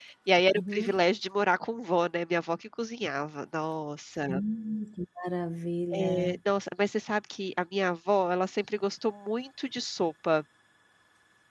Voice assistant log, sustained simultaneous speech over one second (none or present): none